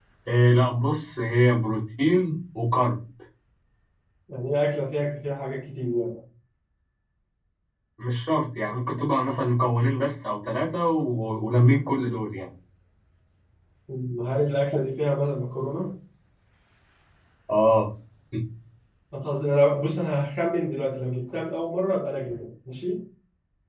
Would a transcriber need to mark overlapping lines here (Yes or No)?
No